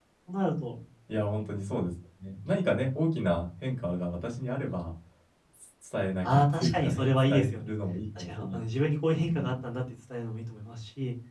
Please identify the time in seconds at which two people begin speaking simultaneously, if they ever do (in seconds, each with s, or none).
6.2 s